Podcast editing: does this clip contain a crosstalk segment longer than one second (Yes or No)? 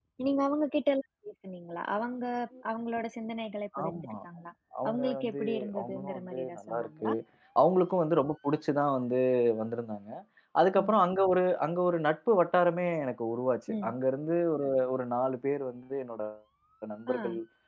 Yes